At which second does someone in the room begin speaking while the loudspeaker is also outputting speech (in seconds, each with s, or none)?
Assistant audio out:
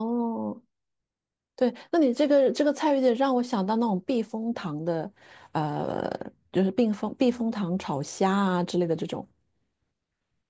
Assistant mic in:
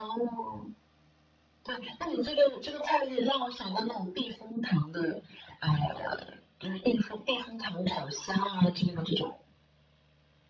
none